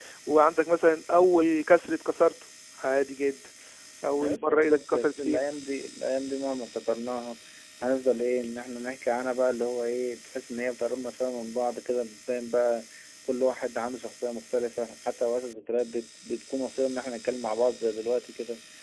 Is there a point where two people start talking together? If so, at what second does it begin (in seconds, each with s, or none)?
4.2 s